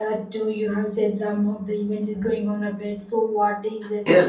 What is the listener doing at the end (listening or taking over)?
taking over